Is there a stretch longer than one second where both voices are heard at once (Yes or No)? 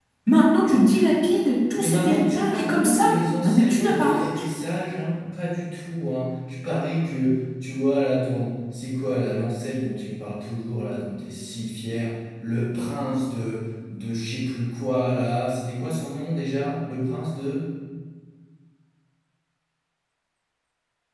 Yes